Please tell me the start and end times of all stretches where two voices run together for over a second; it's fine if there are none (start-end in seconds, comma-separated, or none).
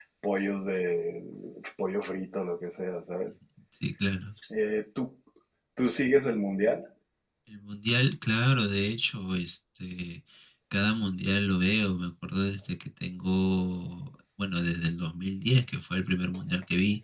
none